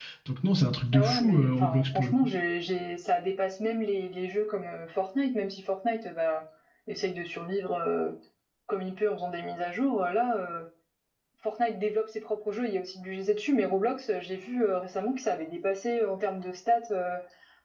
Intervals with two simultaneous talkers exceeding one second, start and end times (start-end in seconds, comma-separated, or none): 0.9-2.1